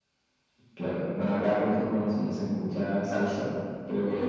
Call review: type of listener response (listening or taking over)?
taking over